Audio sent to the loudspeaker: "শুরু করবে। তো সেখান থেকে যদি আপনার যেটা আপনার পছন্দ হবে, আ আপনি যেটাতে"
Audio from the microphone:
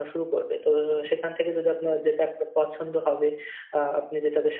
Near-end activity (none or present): none